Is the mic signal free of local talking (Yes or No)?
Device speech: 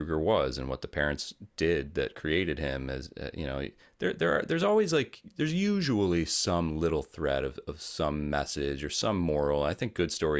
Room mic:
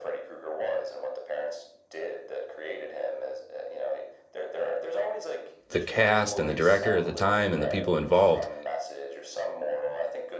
No